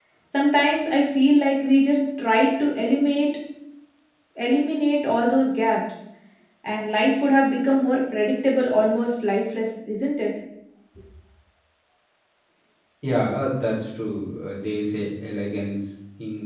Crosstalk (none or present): none